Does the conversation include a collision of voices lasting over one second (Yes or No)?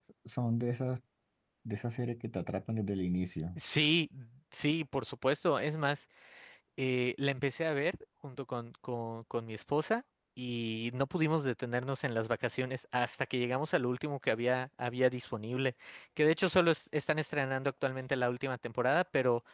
No